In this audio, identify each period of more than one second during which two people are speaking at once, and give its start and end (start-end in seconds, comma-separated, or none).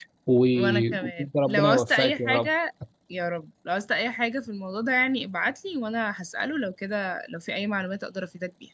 0.5-2.5